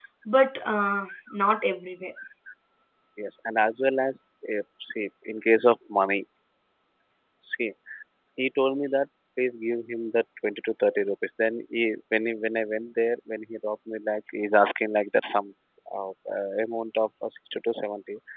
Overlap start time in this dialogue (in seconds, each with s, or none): none